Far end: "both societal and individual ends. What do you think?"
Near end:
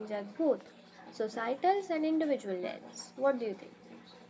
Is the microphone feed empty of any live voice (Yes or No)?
Yes